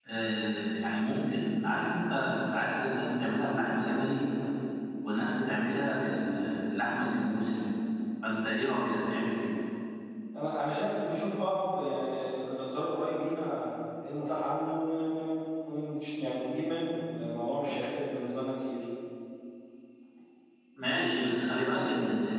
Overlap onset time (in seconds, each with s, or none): none